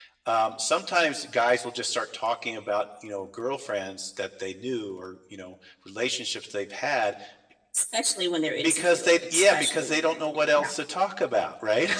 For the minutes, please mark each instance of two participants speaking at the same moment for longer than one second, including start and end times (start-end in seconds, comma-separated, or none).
8.6-10.7